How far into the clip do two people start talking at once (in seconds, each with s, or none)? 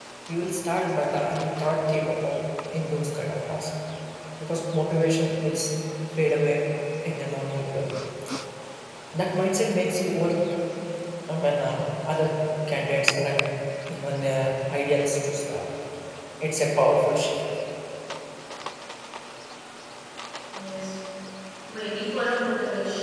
none